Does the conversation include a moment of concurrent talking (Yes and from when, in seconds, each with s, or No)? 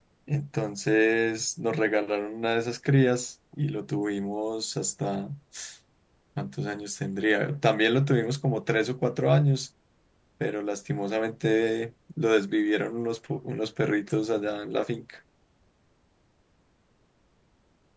No